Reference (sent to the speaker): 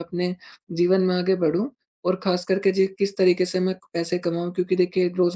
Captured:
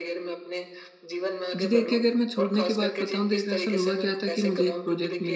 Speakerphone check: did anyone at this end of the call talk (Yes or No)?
Yes